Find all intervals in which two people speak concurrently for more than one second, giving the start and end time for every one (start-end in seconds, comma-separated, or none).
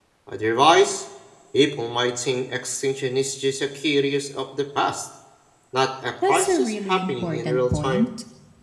6.3-8.1